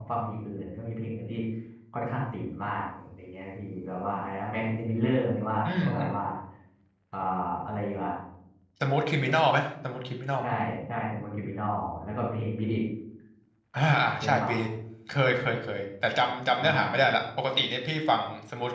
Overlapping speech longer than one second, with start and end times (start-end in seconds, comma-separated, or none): none